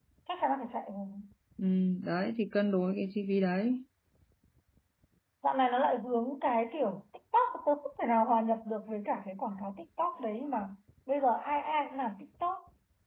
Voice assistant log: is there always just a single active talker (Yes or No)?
Yes